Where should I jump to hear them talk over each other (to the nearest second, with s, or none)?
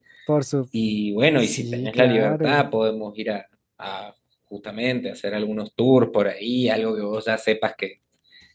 1 s